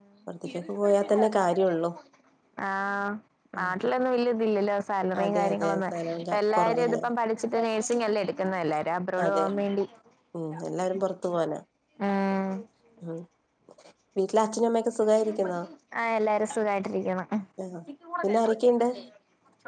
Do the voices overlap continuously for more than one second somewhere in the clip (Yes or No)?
Yes